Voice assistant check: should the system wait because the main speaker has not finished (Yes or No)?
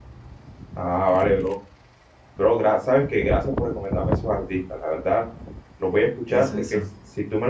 Yes